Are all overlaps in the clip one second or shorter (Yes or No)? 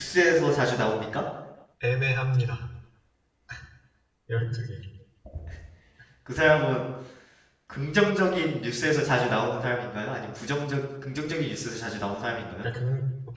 Yes